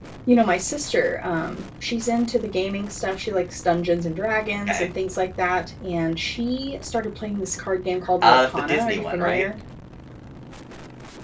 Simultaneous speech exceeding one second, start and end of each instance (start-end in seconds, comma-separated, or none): 8.2-9.4